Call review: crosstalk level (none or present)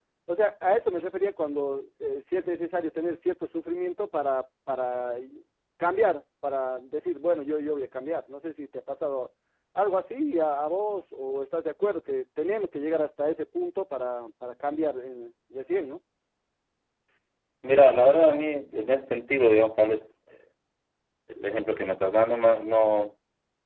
none